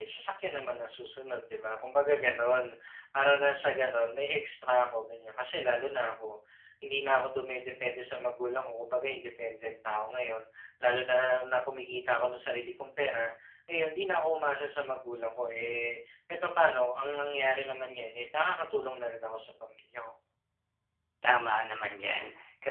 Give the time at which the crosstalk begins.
none

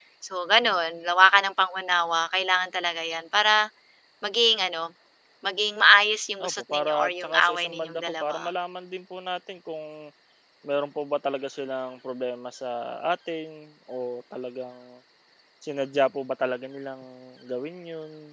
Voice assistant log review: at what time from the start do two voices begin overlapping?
6.4 s

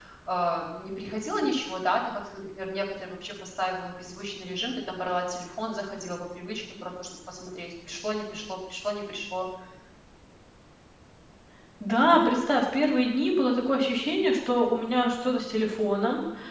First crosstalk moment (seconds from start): none

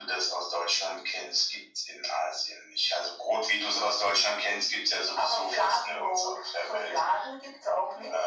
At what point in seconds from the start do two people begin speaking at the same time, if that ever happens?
5.2 s

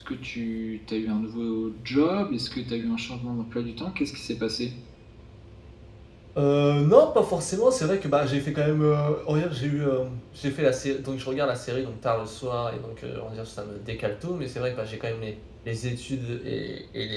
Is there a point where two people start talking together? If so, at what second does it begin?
none

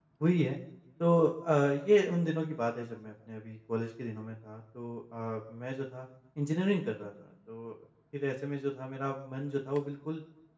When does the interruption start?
none

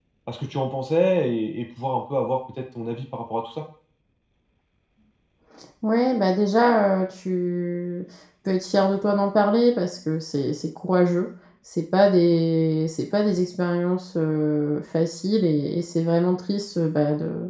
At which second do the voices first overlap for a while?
none

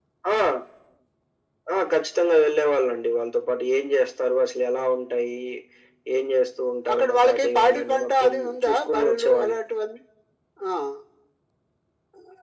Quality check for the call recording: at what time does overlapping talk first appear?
6.9 s

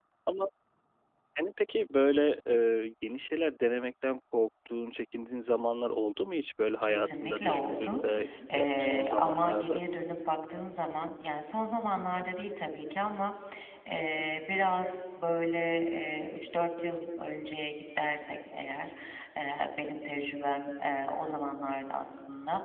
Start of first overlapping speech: 6.8 s

